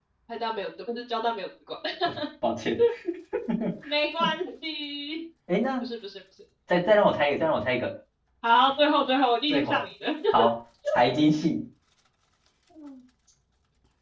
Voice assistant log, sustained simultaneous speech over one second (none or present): none